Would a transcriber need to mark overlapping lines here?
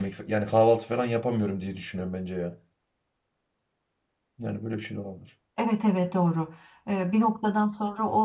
No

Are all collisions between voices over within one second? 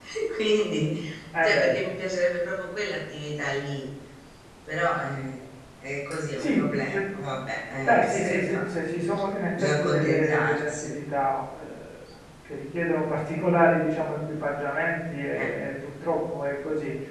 No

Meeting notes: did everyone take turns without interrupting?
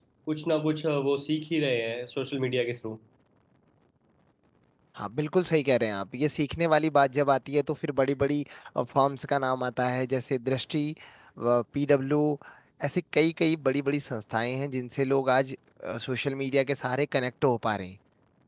Yes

